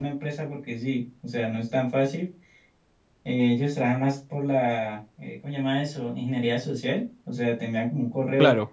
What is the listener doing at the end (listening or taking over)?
listening